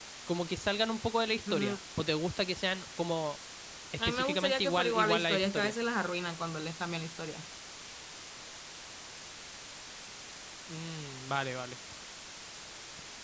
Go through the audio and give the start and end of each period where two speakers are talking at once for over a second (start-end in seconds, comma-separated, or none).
4.0-5.7